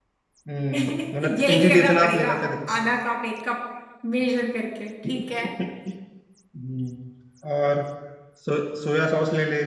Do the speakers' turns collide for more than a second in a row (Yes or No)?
Yes